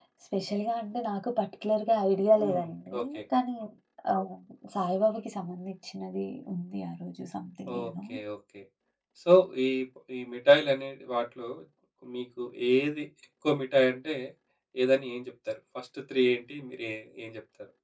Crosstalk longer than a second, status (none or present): none